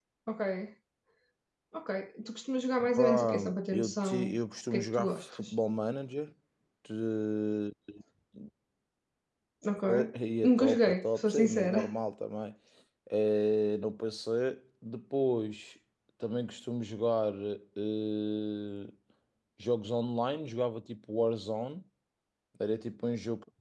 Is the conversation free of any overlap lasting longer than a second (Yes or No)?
No